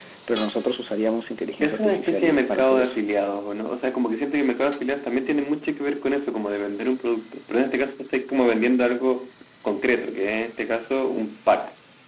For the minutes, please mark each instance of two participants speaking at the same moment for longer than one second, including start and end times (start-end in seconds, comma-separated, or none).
1.6-2.9